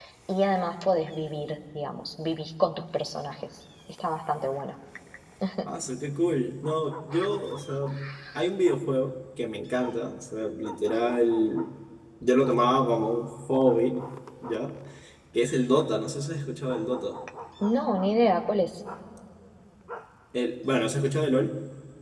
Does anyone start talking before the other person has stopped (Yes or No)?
No